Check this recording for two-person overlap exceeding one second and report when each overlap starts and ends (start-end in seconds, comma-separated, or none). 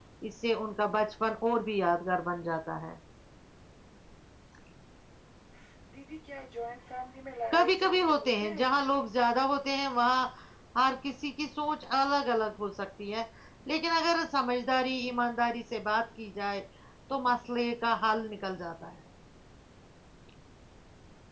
7.5-8.9